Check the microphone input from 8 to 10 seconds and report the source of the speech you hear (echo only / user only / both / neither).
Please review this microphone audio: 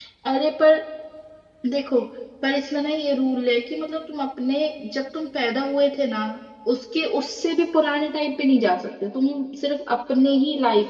user only